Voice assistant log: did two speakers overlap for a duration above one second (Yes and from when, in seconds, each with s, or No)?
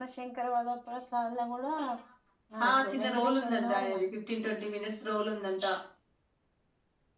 Yes, from 2.7 s